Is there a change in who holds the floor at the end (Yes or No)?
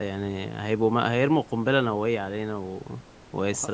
No